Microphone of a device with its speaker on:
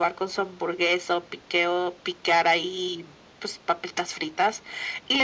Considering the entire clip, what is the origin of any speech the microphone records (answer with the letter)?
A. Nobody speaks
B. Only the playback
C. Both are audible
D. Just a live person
B